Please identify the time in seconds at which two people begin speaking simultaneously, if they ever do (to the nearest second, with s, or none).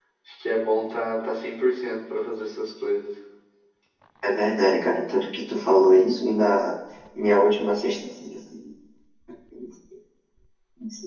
none